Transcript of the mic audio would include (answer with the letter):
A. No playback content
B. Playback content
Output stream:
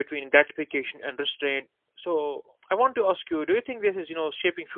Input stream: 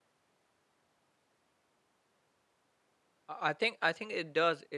A